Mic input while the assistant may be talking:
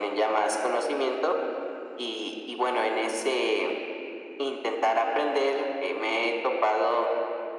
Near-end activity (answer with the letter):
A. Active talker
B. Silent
B